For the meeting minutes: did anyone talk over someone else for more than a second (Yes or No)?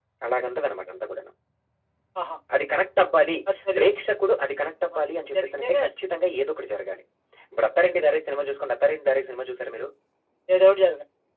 No